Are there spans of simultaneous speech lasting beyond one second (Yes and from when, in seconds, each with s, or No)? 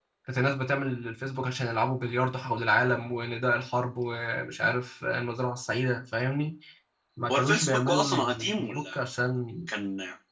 Yes, from 7.3 s